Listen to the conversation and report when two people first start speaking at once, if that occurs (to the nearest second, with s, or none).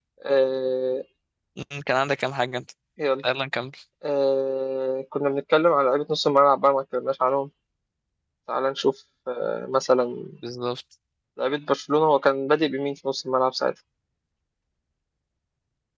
none